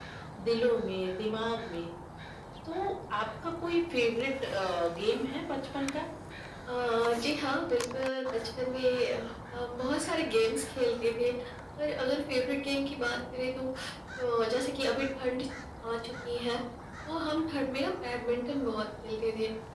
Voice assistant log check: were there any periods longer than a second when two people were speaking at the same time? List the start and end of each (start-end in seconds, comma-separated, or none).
none